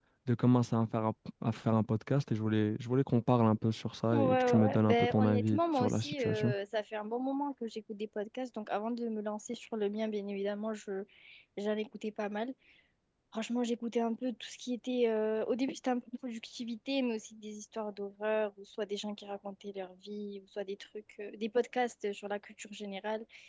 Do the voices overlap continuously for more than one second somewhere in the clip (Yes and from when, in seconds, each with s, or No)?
Yes, from 4.1 s